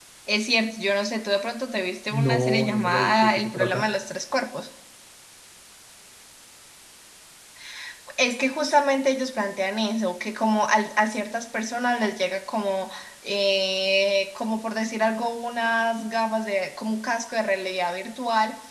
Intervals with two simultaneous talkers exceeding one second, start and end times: 2.1-3.9

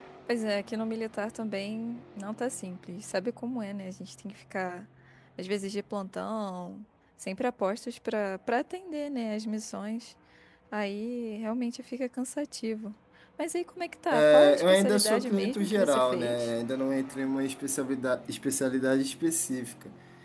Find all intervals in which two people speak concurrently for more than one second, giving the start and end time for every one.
14.1-16.5

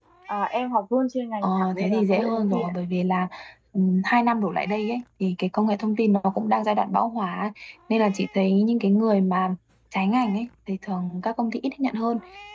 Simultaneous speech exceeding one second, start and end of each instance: 1.4-2.7

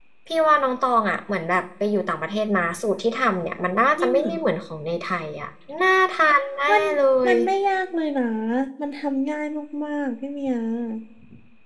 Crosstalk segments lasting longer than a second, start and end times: none

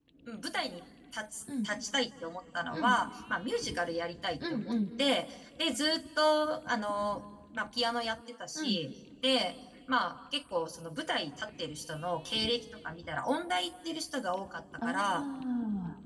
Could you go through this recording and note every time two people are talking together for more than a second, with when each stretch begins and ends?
none

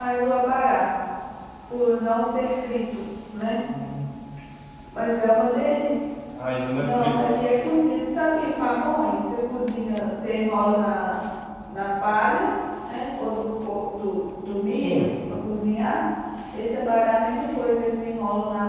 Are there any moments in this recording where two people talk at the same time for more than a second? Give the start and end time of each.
none

